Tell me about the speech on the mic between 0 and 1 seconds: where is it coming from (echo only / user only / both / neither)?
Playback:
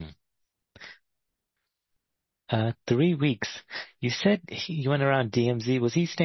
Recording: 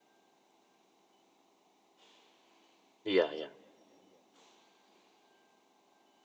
neither